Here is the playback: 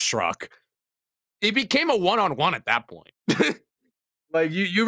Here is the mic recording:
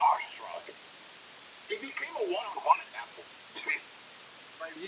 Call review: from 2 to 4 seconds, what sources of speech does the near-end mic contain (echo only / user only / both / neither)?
echo only